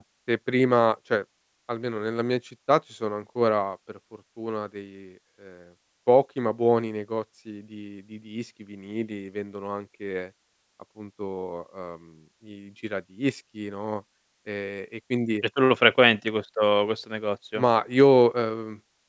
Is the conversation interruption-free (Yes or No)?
Yes